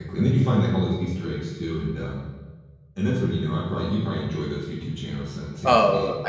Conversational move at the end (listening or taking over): taking over